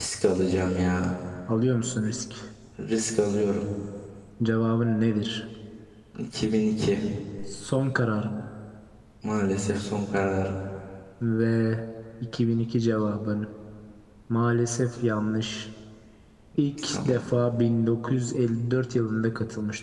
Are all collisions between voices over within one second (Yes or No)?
Yes